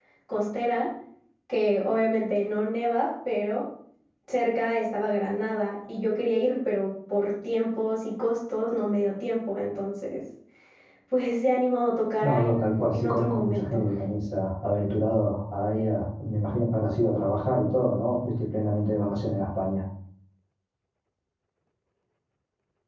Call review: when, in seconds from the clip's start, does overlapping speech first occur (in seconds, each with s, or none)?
12.2 s